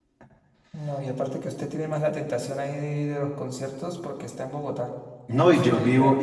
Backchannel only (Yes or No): No